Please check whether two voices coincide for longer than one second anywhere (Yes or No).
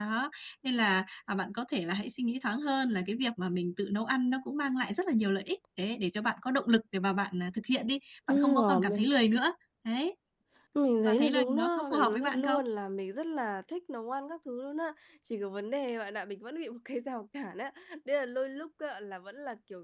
Yes